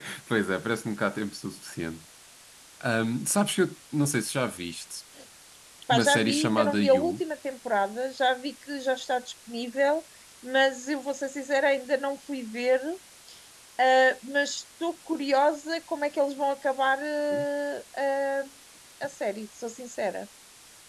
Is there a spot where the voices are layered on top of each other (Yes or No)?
Yes